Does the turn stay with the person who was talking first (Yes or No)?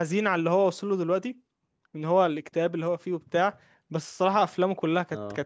Yes